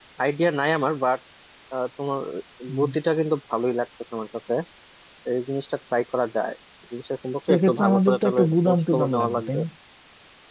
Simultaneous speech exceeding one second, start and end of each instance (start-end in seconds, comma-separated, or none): 7.5-9.6